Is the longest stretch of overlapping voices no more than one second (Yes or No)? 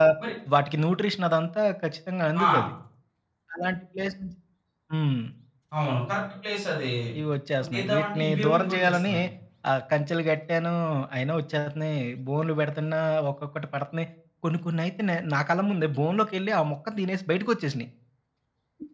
No